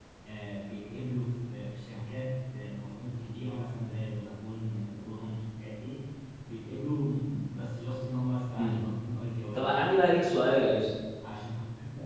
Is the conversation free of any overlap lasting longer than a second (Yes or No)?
Yes